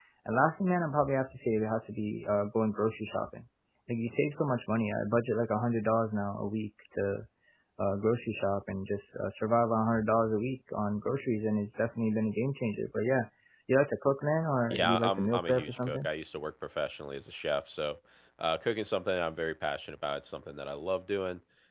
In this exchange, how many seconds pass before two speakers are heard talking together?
14.7 s

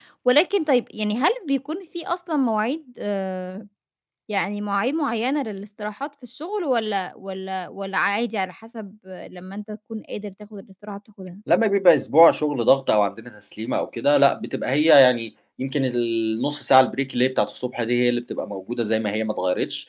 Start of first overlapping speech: none

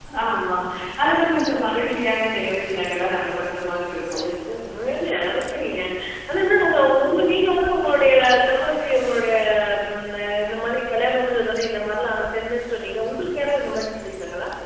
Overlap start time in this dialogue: none

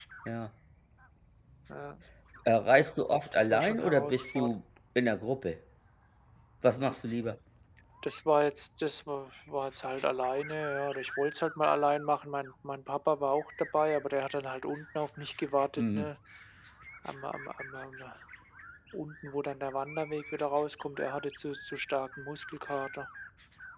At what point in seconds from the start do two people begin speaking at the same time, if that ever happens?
3.3 s

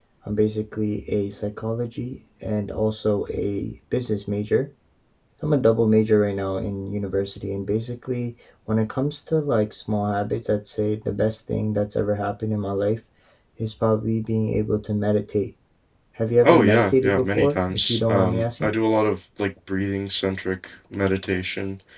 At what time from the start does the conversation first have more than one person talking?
16.4 s

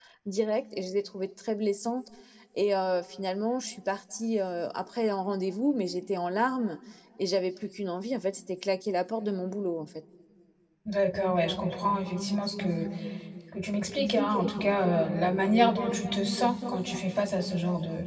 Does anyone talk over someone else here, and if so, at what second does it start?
none

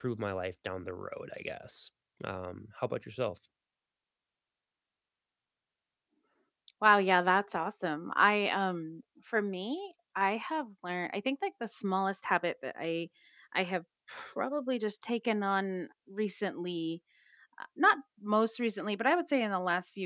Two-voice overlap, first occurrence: none

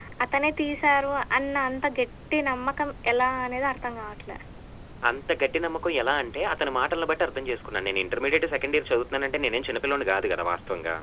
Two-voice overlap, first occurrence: none

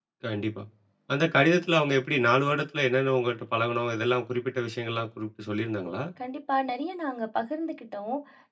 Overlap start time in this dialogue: none

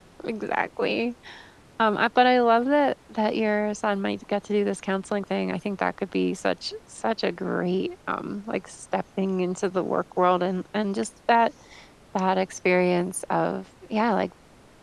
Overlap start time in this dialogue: none

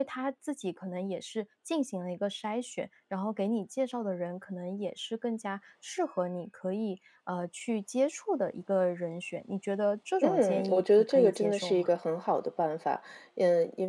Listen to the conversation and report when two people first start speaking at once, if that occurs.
10.2 s

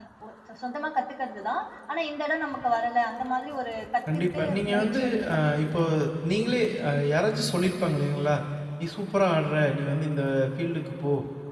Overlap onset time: 4.1 s

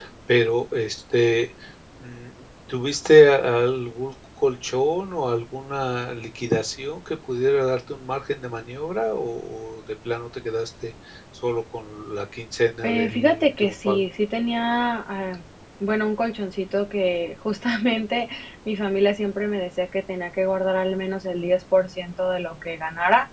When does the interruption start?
12.8 s

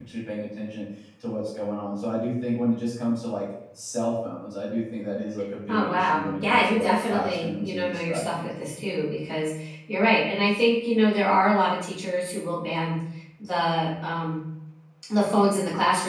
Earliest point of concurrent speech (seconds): 5.7 s

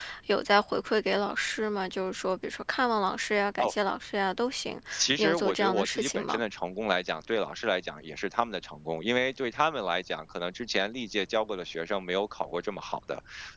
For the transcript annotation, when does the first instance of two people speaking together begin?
5.2 s

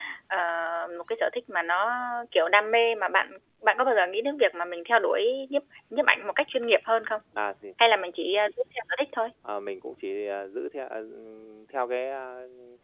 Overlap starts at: none

